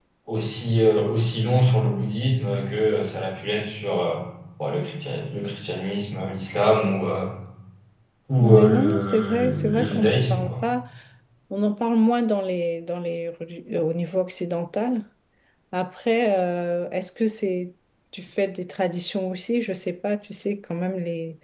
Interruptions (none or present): present